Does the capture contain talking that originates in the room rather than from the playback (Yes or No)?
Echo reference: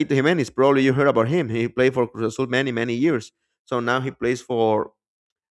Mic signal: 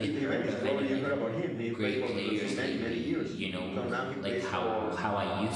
Yes